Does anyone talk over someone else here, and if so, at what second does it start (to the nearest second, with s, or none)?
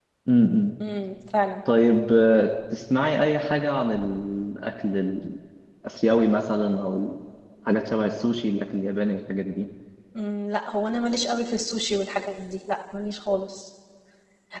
none